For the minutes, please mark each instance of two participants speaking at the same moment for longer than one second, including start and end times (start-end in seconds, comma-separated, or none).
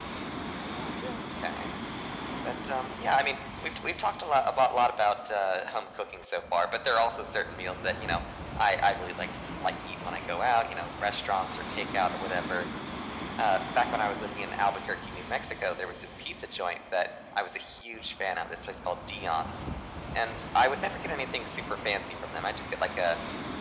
none